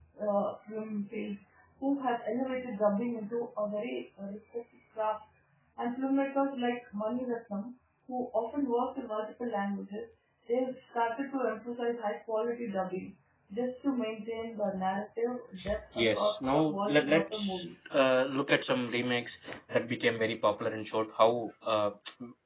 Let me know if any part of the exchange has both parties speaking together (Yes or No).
Yes